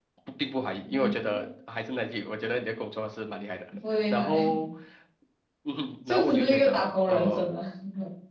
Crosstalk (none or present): present